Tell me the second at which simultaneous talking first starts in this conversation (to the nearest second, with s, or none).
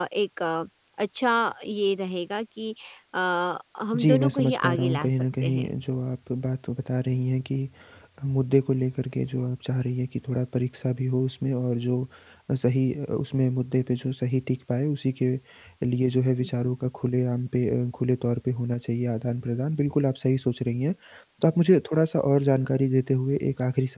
4 s